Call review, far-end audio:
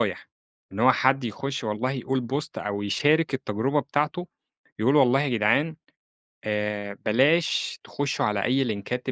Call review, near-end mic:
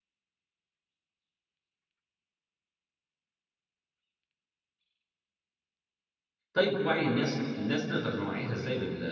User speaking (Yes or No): Yes